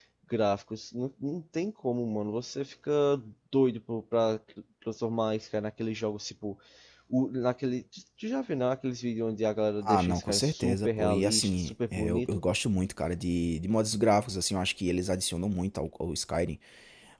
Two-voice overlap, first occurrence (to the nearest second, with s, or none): 10 s